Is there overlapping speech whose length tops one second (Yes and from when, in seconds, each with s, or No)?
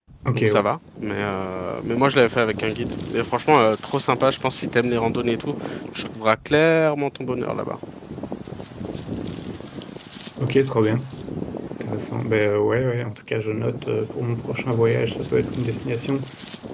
No